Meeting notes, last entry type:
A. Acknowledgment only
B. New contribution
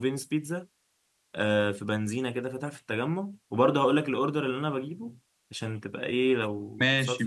A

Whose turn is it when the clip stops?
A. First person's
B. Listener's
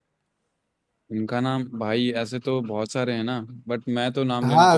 B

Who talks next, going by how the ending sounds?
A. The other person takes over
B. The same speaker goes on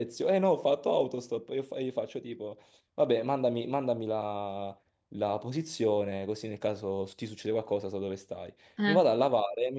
B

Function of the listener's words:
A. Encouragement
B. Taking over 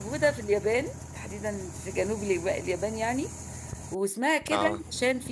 A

